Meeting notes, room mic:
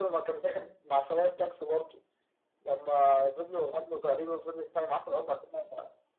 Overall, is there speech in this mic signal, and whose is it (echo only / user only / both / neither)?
echo only